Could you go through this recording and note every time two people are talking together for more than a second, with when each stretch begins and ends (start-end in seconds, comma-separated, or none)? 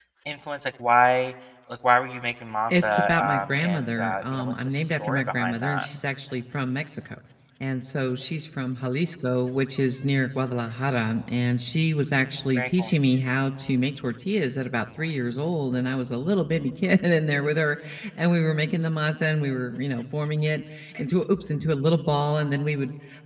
2.7-5.8